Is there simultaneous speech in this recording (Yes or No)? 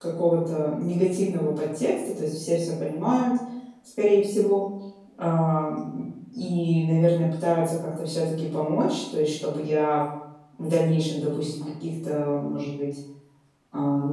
No